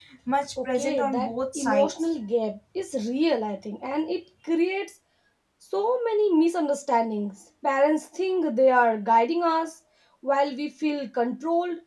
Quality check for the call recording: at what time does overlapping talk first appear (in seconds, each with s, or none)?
0.7 s